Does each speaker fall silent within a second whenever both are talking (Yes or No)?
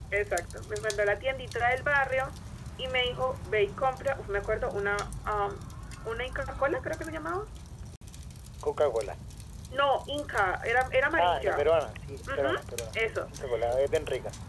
Yes